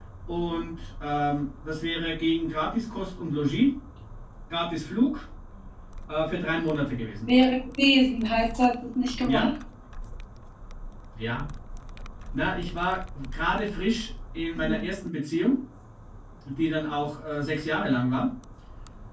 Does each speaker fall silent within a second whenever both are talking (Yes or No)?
Yes